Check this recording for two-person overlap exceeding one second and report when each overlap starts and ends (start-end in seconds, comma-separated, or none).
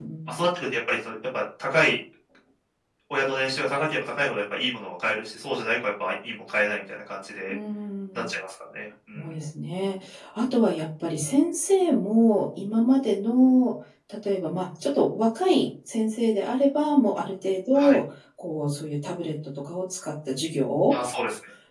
none